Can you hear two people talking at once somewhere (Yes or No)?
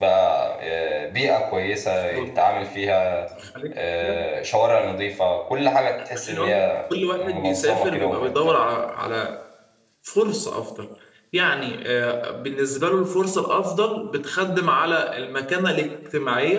Yes